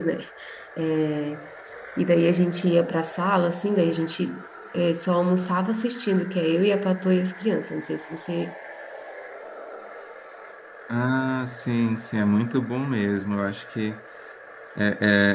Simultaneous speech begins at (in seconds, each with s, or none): none